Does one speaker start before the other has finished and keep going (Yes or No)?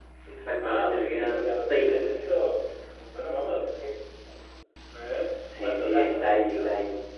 Yes